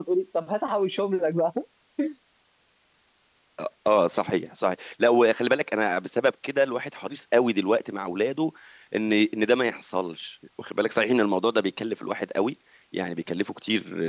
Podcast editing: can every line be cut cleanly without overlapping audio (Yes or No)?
Yes